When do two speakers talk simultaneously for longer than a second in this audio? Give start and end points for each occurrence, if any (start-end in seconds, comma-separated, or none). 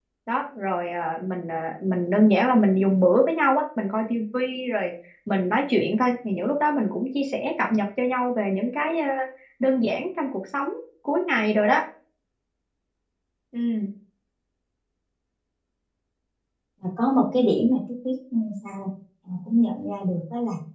none